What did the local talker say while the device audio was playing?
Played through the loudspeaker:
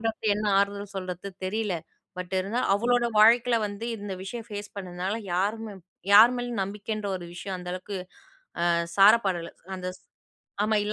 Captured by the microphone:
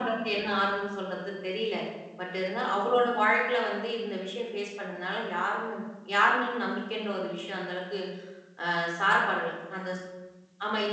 none

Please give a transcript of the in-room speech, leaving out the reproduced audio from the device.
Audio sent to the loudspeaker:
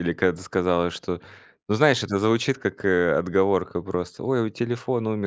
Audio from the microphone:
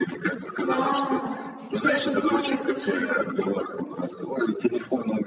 Да, и это самое случилось.

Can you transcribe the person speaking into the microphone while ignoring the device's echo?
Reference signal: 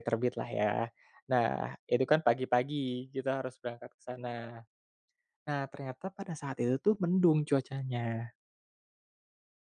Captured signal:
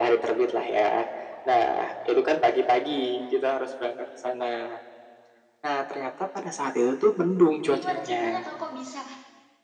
itu gimana ceritanya, kok kok bisa

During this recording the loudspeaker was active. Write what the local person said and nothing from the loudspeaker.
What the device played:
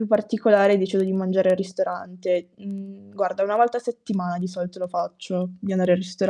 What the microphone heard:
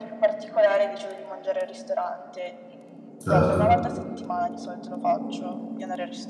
Certo,

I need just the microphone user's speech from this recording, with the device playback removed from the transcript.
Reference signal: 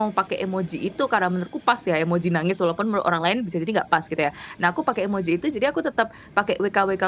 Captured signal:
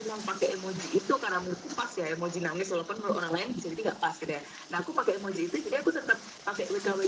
none

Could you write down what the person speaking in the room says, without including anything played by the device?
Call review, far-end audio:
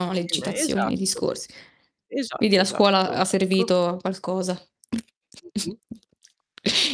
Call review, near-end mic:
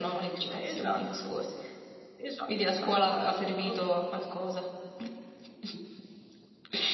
none

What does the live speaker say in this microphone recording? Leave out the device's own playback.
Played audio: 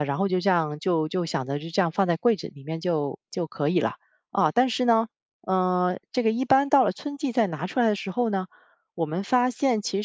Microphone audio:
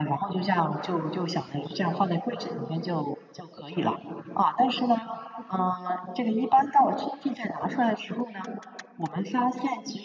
none

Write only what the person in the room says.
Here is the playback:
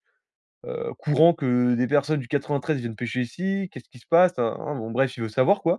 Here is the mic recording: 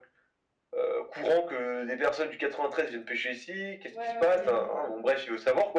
Ouais, ouais, i

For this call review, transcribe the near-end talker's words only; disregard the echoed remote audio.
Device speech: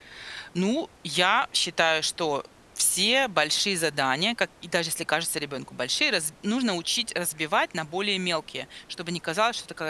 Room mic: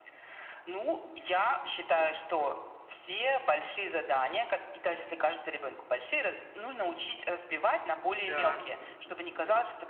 Да.

